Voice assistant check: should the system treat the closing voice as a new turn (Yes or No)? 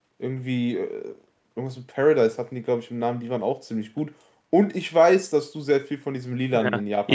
Yes